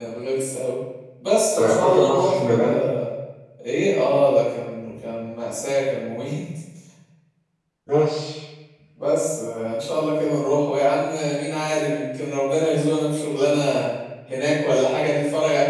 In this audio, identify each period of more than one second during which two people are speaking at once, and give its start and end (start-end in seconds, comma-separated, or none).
1.6-2.9